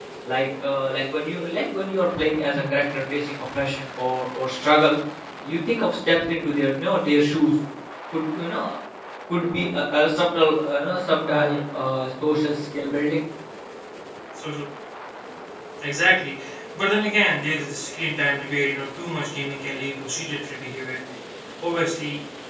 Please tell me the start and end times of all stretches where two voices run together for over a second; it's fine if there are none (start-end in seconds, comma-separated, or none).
none